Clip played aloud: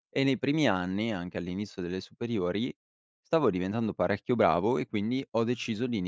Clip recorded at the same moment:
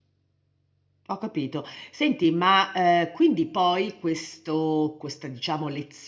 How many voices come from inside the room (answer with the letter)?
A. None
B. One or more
B